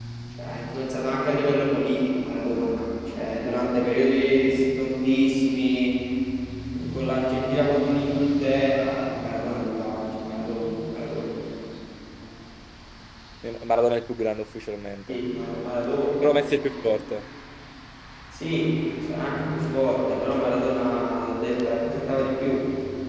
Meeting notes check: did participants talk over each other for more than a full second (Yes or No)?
No